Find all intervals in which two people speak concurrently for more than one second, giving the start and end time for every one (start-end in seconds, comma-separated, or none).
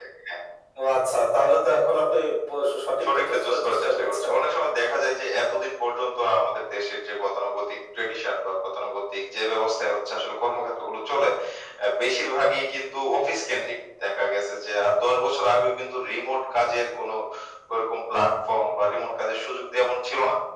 3.0-4.3